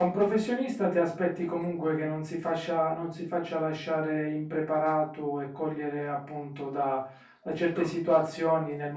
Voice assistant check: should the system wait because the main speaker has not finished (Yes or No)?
Yes